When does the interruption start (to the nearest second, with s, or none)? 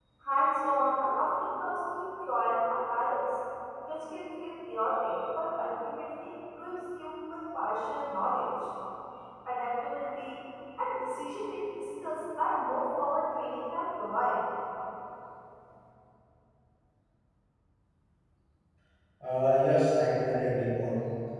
none